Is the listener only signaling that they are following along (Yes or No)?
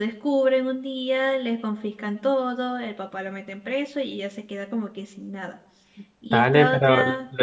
No